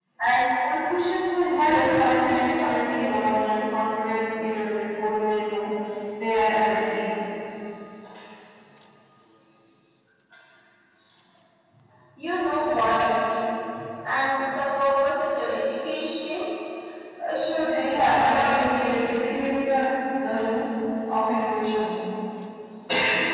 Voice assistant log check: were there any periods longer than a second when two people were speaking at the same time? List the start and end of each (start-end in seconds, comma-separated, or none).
1.5-3.6, 17.7-19.4